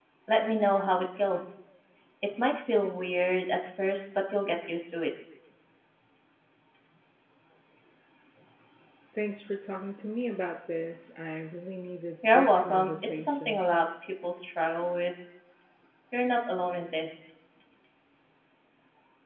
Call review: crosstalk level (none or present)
present